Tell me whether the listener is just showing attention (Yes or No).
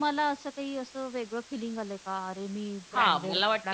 No